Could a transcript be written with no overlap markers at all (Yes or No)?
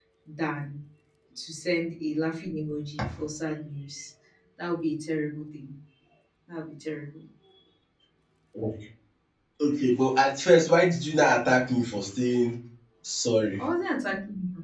Yes